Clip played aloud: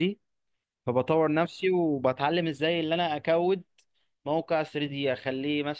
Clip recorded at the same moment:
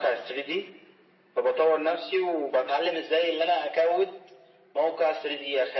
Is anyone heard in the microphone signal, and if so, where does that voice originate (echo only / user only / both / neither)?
echo only